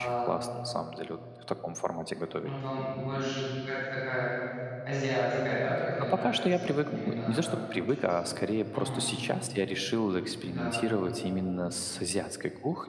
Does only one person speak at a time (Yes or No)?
No